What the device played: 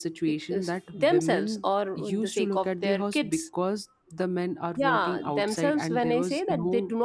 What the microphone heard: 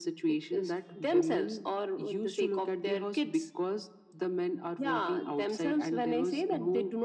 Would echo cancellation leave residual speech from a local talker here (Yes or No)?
No